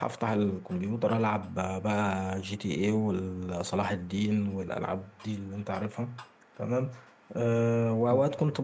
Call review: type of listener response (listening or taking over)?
listening